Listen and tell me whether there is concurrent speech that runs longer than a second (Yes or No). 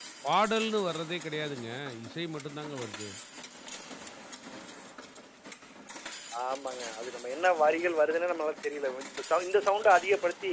No